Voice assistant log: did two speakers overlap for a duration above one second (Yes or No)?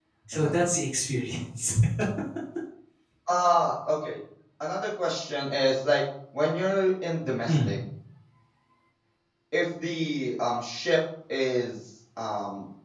No